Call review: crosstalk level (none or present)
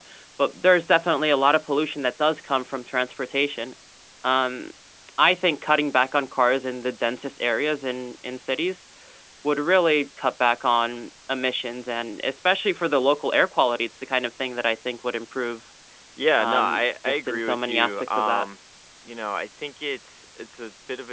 present